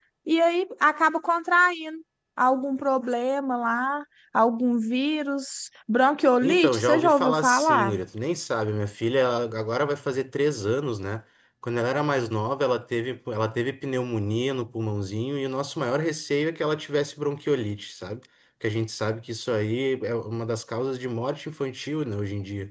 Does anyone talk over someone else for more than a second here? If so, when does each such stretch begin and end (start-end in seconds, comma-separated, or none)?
6.4-7.9